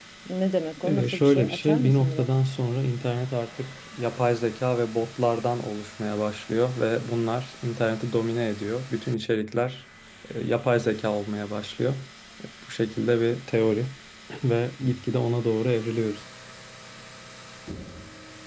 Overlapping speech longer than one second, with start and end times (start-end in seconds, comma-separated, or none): 0.8-2.3